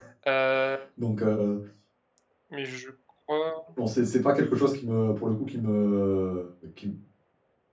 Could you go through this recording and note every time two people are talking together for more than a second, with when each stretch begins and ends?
none

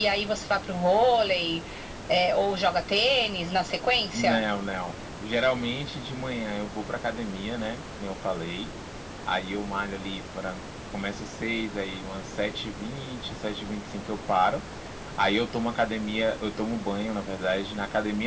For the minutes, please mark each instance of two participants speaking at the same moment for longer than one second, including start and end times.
none

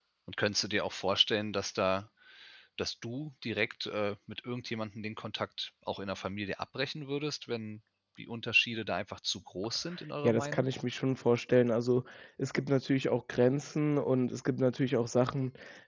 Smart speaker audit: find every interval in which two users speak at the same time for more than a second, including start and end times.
none

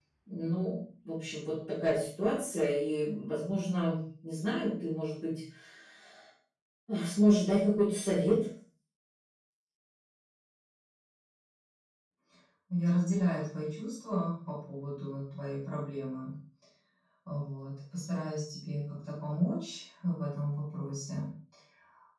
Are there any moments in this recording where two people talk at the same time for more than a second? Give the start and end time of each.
none

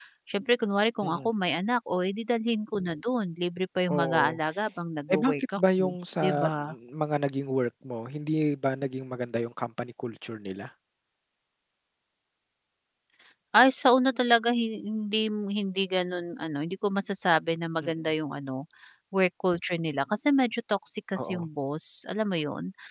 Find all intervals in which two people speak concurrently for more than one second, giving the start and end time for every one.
5.1-6.5

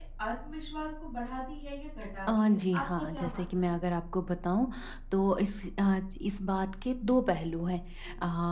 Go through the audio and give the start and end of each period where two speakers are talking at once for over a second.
2.4-3.8

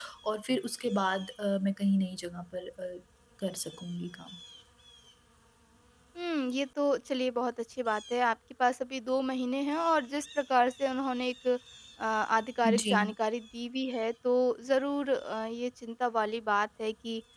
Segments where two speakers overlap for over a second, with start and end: none

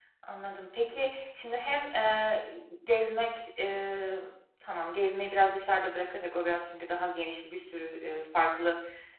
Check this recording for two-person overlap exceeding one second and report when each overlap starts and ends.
none

